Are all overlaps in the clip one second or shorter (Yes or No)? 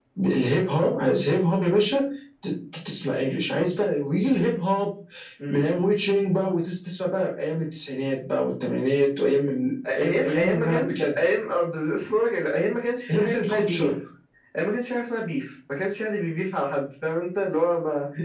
No